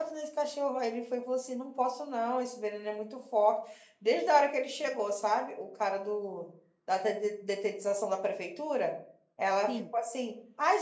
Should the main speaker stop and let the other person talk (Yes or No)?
No